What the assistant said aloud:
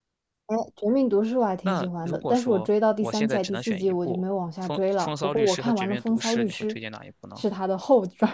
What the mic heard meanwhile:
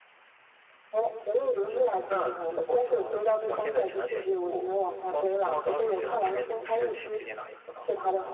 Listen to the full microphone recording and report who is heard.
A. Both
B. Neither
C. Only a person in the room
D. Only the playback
D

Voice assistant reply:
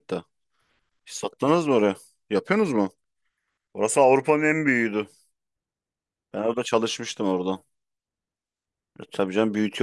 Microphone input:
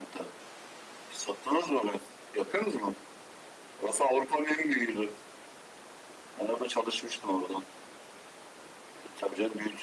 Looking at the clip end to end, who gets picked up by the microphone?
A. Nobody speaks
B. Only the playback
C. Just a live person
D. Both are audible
B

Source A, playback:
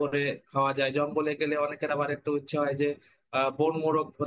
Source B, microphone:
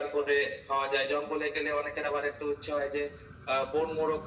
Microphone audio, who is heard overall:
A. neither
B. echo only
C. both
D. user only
B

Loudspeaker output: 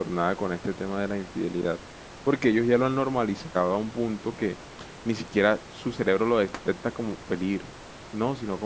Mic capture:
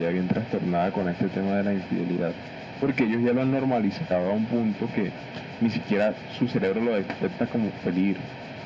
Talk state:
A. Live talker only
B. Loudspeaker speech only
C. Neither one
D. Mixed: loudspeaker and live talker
B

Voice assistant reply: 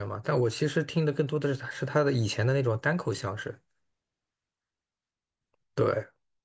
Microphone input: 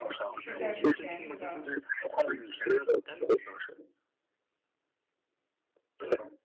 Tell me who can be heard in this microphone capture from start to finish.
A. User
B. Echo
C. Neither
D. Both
D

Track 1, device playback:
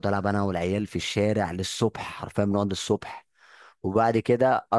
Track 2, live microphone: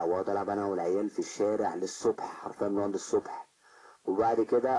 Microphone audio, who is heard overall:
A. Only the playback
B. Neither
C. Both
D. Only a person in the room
A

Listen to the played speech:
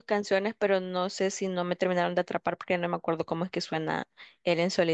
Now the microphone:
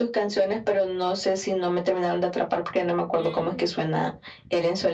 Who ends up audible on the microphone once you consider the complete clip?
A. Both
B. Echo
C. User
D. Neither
A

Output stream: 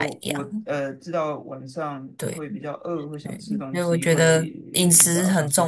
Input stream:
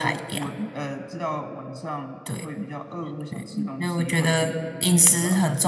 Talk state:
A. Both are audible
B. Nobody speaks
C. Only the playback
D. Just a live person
C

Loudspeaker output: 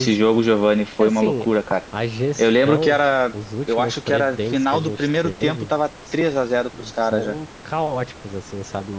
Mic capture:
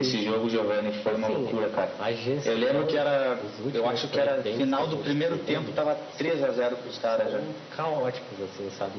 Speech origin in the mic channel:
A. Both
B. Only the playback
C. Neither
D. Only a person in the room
B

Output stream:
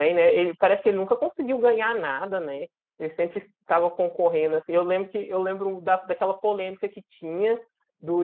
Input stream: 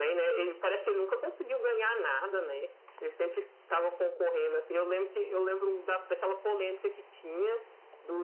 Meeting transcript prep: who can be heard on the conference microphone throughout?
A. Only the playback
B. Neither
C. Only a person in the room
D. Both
A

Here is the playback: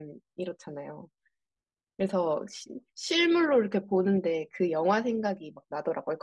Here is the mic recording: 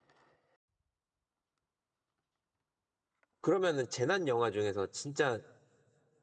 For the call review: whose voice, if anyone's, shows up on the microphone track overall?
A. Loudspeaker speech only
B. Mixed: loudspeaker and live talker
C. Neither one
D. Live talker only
D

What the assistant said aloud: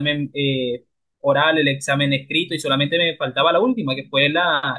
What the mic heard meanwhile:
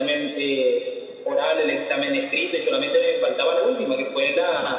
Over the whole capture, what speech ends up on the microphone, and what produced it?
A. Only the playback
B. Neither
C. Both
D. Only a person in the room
A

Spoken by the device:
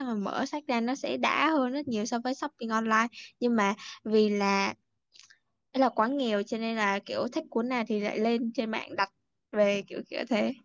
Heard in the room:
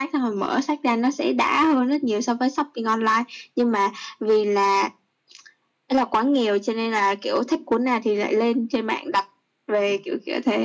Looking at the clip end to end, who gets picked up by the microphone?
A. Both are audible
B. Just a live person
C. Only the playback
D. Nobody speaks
C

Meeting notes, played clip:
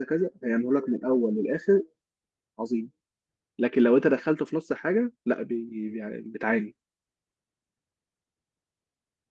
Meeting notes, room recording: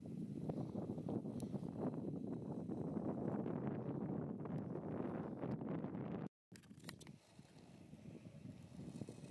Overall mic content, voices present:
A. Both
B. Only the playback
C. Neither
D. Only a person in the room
C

